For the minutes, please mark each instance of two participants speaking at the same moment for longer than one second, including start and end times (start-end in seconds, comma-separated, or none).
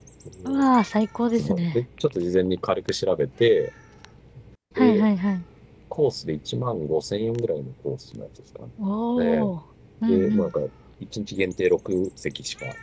none